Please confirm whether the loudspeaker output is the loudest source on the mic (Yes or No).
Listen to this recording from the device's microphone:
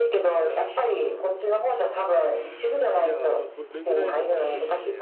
Yes